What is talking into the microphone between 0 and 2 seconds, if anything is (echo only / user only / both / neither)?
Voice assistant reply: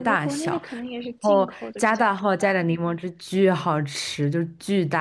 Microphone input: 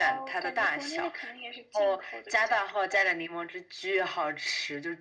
echo only